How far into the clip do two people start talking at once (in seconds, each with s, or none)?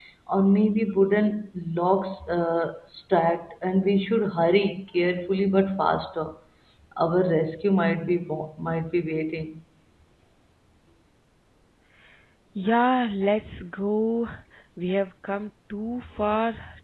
none